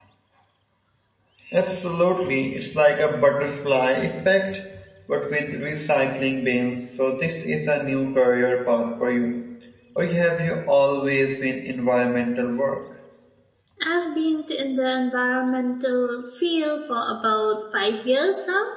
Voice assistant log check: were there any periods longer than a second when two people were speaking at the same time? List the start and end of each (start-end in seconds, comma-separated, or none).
none